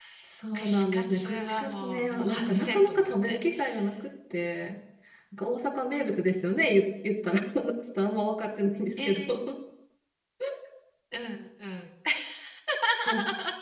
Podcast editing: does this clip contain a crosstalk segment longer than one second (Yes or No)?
Yes